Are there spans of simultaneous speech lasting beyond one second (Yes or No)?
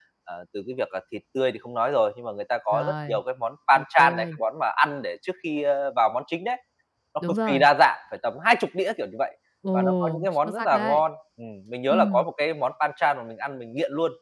Yes